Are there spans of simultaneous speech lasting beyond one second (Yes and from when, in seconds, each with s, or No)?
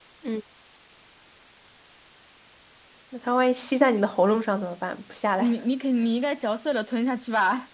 No